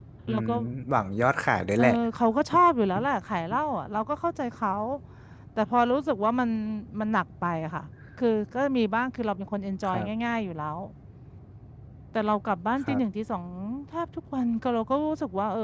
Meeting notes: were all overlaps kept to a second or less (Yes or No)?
Yes